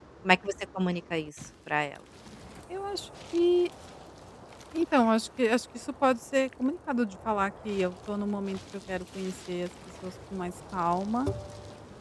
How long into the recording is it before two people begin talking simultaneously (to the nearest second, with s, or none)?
none